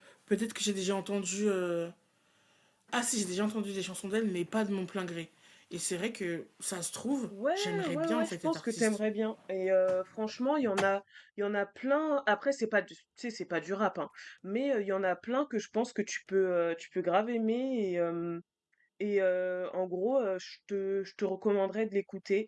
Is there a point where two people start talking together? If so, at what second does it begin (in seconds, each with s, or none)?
7.3 s